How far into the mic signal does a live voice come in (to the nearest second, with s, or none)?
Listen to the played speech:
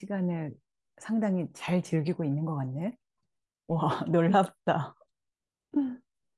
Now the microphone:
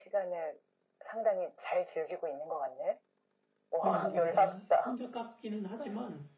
4 s